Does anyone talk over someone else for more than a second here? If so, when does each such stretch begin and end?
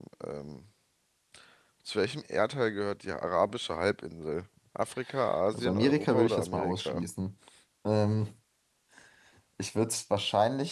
5.5-7.0

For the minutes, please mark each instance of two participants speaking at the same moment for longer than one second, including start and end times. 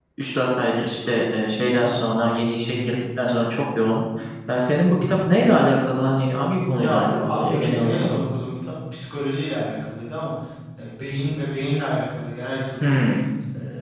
6.7-8.1

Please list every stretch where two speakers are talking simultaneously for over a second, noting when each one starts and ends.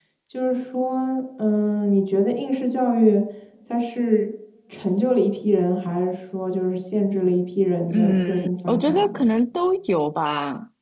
7.9-9.2

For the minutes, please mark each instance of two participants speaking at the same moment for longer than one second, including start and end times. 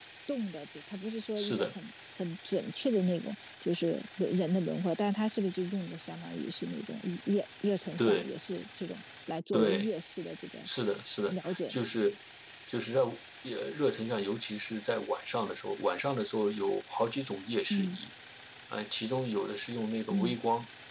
none

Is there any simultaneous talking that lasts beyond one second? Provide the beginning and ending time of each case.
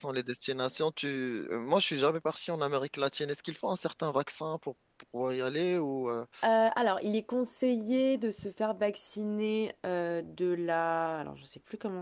none

